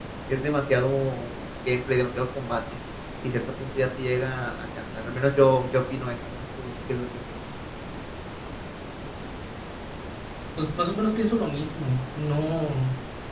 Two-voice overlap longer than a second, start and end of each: none

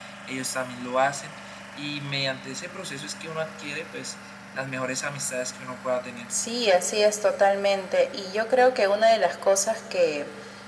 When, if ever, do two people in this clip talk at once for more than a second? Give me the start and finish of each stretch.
none

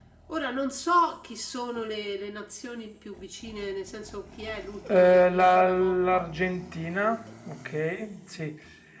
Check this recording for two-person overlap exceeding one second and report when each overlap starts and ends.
4.9-6.3

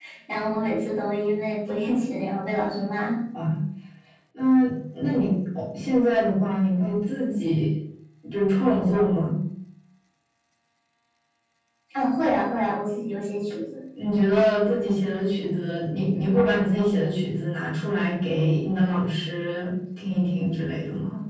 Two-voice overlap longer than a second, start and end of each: none

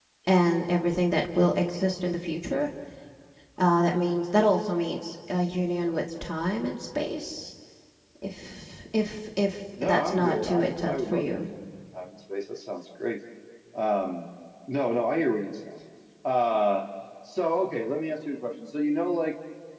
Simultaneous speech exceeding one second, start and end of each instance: 9.8-11.4

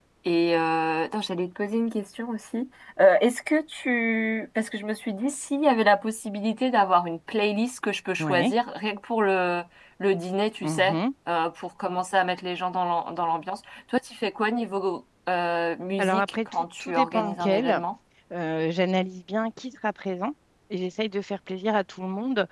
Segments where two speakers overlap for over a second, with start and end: 16.0-17.8

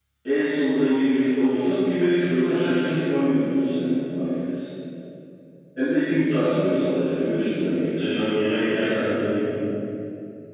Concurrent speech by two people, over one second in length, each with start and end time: none

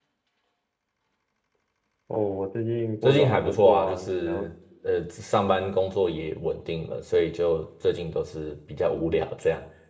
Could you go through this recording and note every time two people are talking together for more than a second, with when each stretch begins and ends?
3.0-4.5

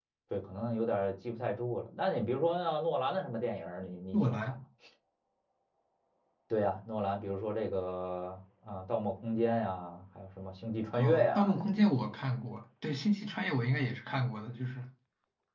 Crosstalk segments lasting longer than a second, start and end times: 10.9-12.2

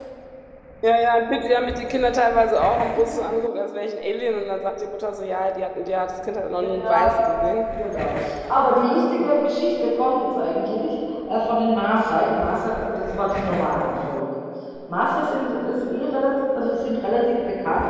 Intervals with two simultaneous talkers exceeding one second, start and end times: none

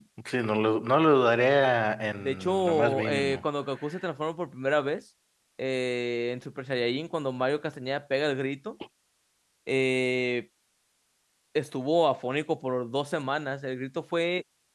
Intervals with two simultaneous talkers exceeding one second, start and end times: 2.2-3.4

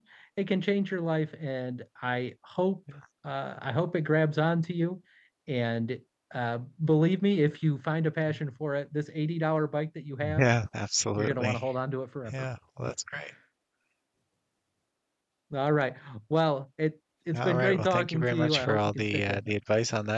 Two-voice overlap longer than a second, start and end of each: 17.4-19.4

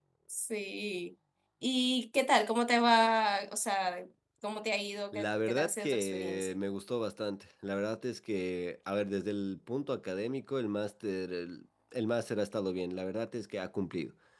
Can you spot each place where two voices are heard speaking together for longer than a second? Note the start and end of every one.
5.1-6.5

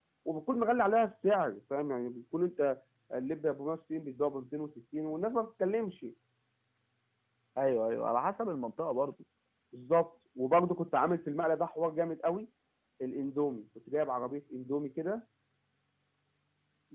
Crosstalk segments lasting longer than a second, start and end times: none

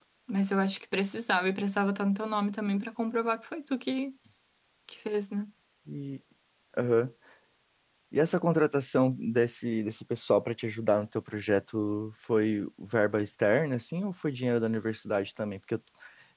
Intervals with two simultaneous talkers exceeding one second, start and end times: none

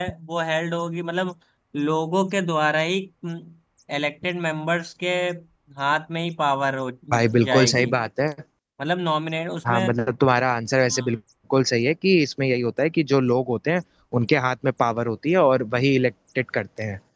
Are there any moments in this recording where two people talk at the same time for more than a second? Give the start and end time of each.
none

